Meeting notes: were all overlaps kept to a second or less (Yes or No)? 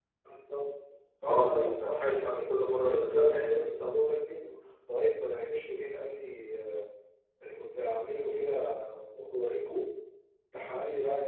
No